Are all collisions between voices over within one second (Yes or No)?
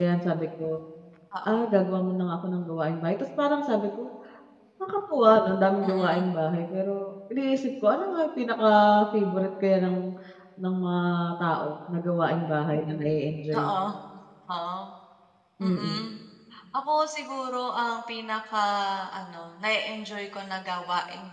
Yes